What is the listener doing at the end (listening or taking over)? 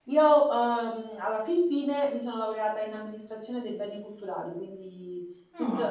listening